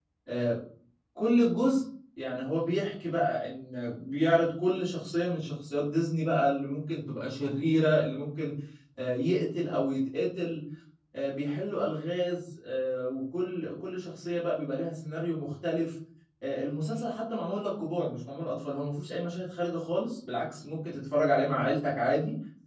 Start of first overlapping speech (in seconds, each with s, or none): none